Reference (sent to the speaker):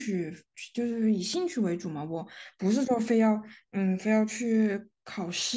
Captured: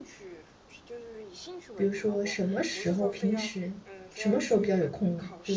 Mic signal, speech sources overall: both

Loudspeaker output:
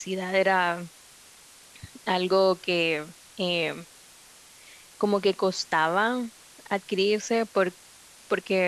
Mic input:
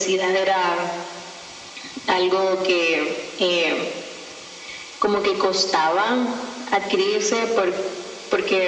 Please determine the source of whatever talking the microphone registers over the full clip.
echo only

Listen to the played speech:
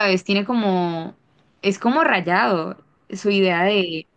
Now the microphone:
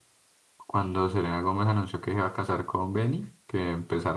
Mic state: user only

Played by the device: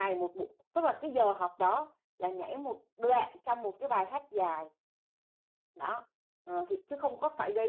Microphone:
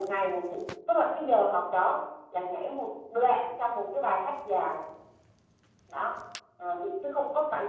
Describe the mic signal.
echo only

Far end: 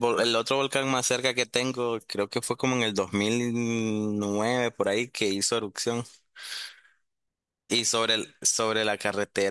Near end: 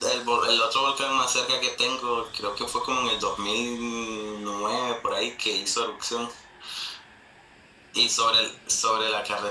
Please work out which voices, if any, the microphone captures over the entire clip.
echo only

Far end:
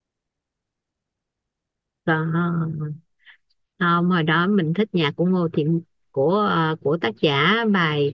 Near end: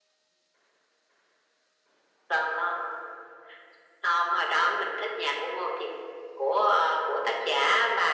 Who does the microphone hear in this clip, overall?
echo only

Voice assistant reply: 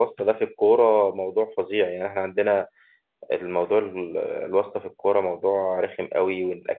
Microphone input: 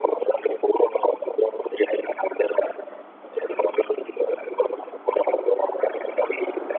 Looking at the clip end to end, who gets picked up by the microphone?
echo only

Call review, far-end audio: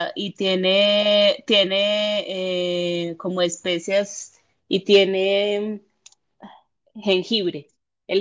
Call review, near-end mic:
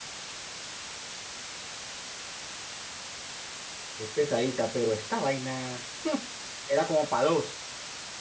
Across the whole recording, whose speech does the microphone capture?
user only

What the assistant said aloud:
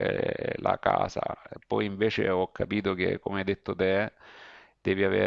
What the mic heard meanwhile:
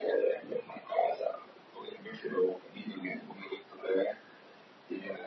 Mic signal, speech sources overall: echo only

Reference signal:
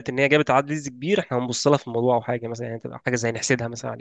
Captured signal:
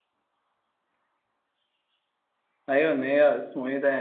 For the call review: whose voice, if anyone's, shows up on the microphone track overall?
user only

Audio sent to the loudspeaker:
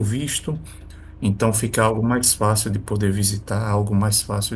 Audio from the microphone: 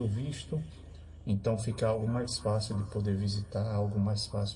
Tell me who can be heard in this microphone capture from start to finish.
echo only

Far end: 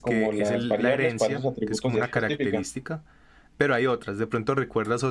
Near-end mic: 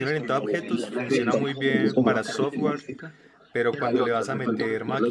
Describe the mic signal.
both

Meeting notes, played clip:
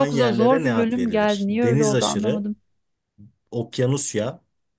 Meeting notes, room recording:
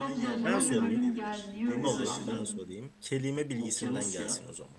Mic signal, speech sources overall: both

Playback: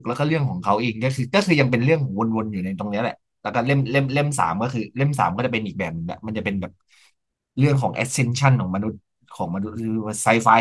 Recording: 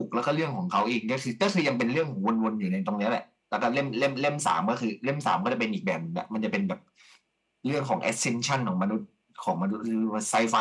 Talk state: echo only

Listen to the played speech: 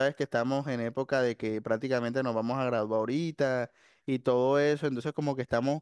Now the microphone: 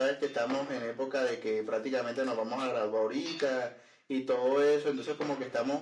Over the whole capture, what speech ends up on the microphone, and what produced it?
echo only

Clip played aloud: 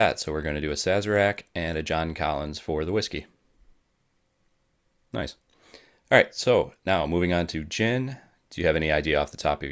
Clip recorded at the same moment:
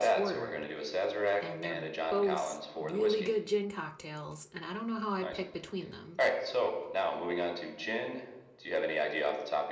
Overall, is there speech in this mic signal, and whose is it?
both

